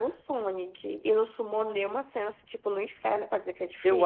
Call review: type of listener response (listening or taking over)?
taking over